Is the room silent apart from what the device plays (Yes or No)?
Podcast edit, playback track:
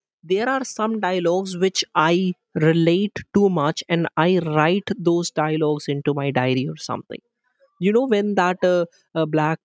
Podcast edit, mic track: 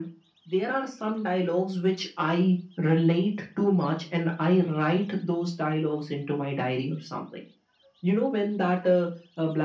Yes